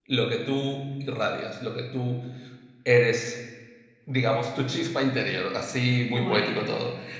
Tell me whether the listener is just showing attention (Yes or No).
Yes